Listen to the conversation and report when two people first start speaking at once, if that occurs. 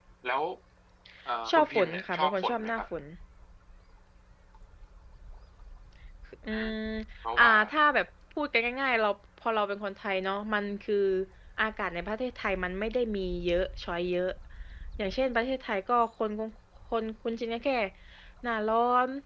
1.5 s

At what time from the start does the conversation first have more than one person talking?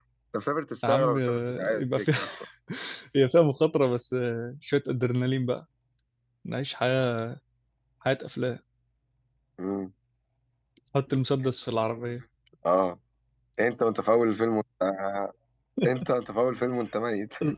0.8 s

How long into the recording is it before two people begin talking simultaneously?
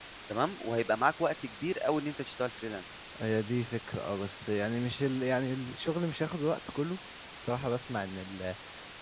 none

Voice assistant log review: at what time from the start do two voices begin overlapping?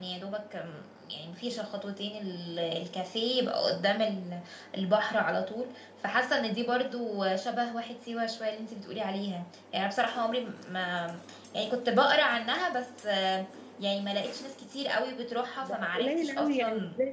15.6 s

